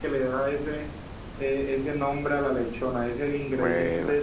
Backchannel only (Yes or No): Yes